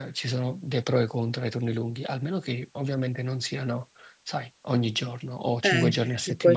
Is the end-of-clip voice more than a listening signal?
Yes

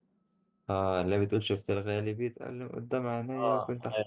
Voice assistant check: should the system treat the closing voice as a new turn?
Yes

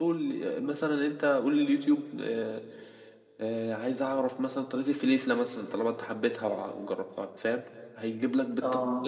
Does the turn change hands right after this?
No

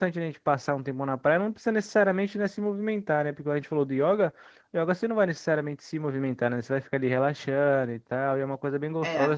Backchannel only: Yes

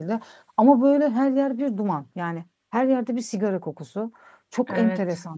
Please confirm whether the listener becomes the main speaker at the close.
No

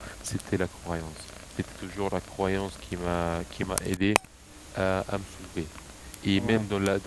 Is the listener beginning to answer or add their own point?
No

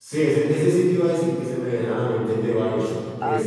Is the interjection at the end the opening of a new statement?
Yes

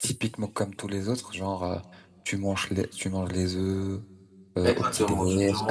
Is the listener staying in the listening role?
No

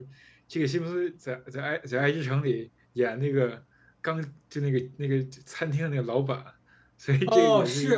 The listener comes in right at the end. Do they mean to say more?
Yes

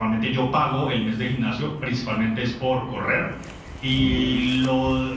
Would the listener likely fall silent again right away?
Yes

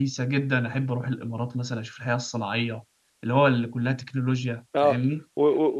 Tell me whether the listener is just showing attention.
No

